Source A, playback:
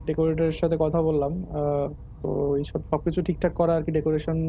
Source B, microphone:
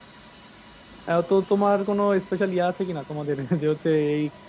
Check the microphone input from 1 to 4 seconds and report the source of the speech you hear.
user only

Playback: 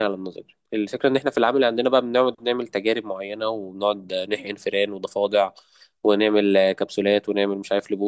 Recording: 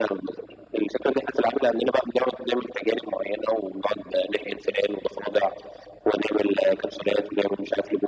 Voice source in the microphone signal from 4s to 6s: echo only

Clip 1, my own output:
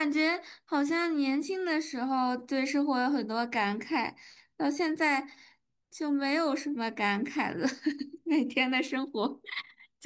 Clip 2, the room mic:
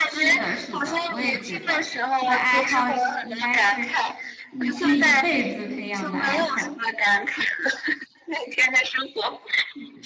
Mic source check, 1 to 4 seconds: both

